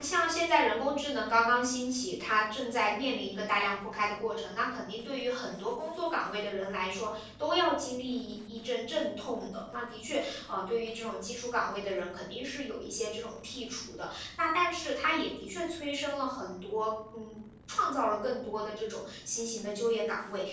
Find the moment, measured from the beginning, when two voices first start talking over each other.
none

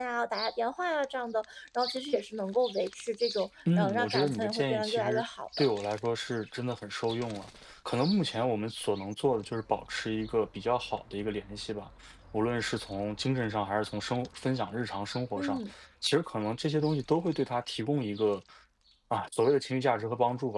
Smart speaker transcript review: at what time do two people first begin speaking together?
3.7 s

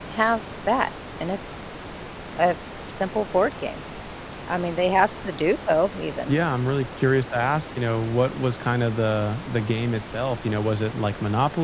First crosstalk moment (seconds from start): none

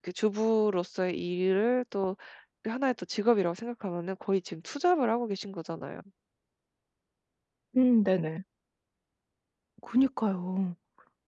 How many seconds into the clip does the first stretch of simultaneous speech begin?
none

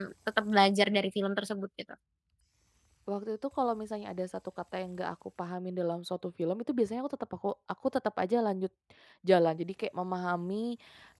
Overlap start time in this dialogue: none

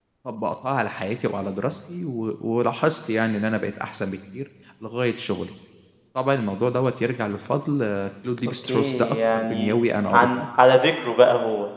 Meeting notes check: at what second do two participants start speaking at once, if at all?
8.6 s

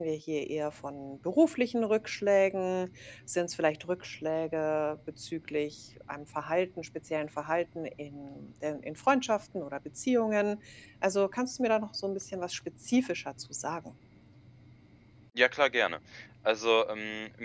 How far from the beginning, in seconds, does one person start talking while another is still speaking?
none

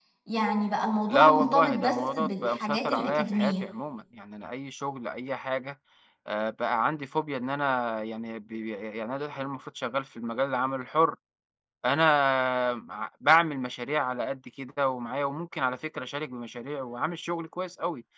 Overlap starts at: 1.1 s

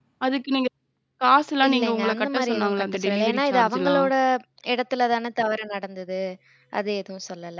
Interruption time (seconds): 1.7 s

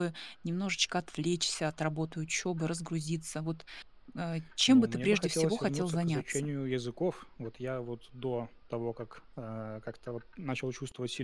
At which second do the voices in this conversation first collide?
4.7 s

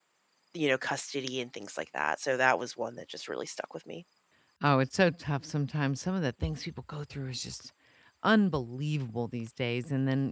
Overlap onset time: none

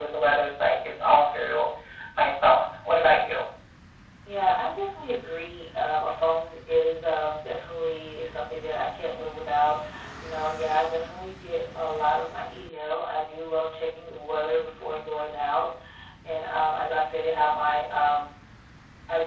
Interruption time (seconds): none

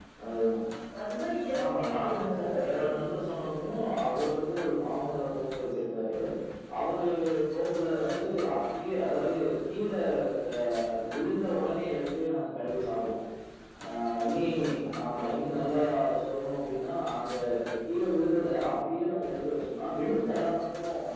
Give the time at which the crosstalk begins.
1.6 s

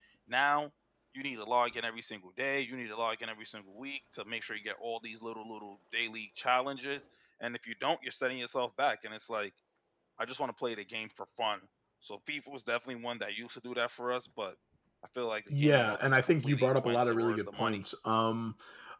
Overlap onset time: 15.5 s

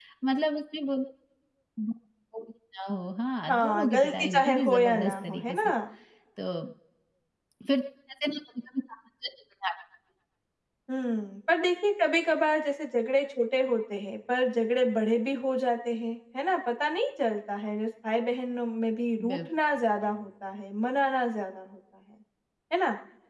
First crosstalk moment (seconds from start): 3.5 s

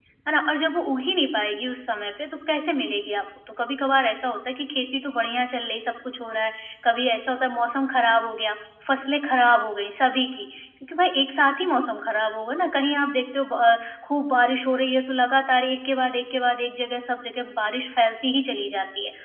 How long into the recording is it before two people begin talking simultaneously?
none

